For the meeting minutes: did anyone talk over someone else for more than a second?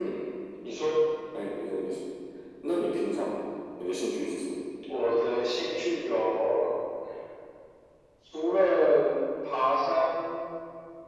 No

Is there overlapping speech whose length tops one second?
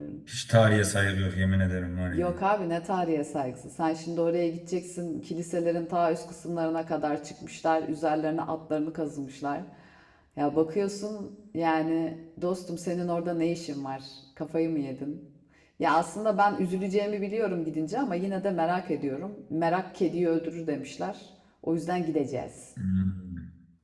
No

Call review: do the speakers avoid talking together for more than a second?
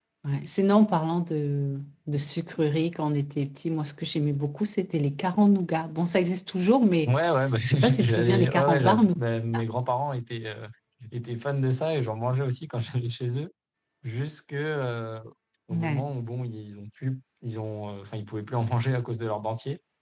No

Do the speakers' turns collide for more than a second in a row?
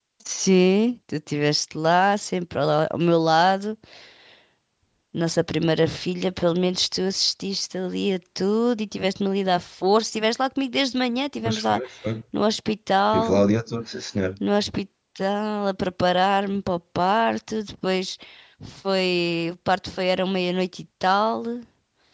No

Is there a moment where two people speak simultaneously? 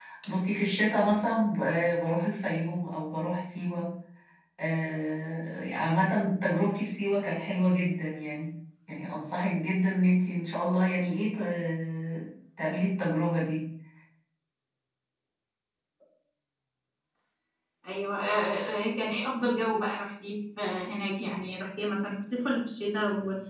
No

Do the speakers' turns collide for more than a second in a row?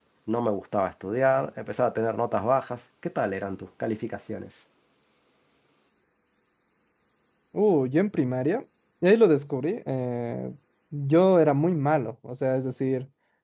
No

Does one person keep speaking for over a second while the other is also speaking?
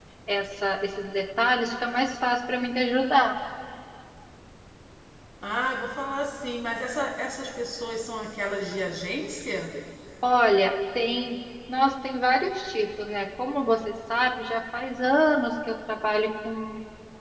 No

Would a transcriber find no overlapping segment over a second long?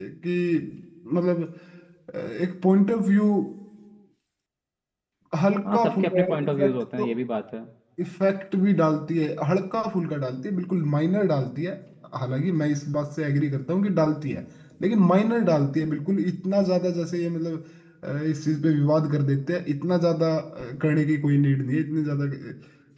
No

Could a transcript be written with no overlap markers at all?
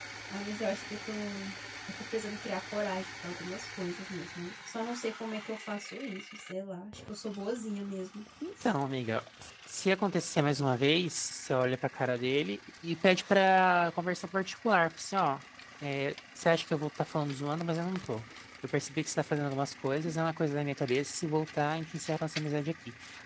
Yes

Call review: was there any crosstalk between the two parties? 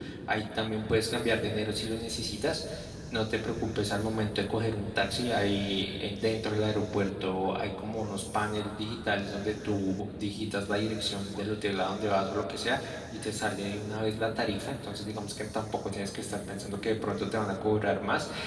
No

